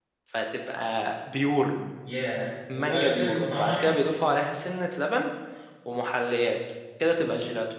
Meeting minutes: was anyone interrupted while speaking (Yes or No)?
Yes